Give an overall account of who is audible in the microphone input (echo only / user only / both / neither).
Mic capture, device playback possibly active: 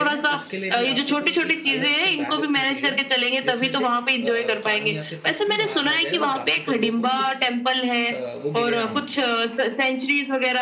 both